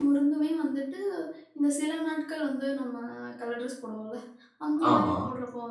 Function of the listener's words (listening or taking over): listening